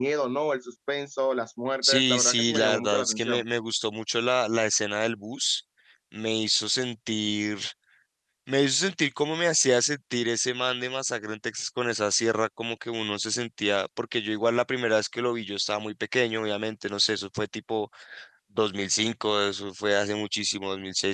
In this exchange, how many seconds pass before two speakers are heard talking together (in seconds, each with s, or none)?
1.8 s